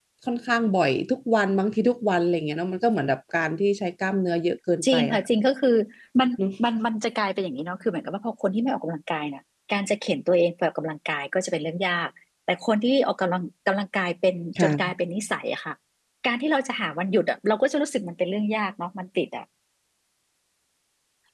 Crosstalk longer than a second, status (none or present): none